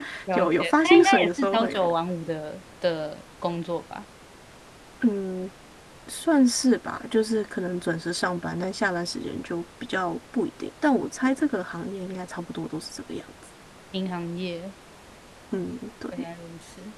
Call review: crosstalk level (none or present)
present